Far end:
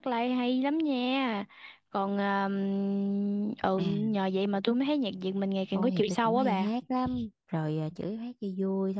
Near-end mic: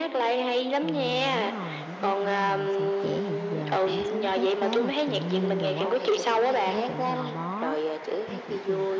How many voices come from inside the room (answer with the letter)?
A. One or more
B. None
A